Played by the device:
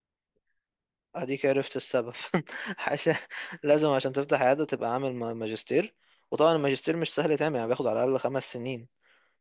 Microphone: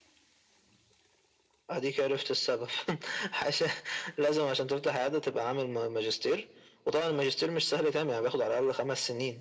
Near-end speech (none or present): none